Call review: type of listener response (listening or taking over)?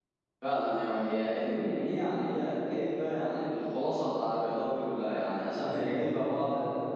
listening